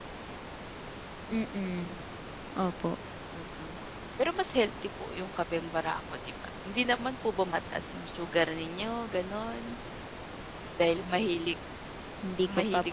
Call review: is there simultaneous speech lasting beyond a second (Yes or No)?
No